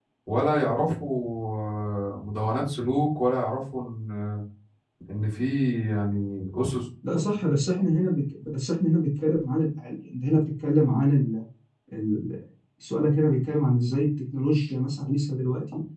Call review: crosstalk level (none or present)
none